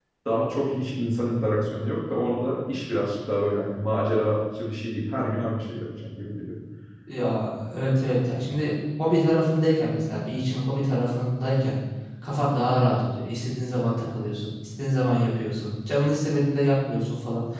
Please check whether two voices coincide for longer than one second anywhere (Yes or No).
No